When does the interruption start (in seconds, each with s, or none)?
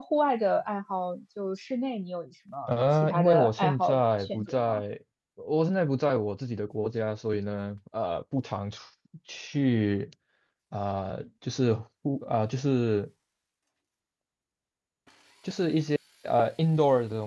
2.7 s